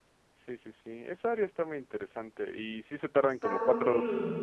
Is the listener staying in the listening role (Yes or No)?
Yes